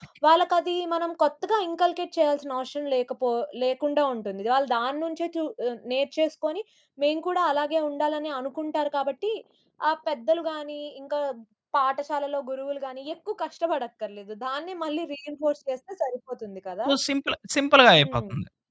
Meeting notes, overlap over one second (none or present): none